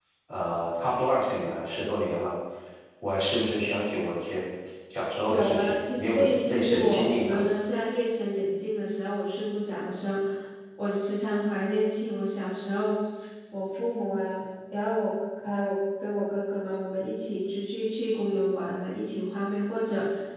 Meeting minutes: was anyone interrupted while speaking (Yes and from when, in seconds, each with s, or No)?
Yes, from 5.3 s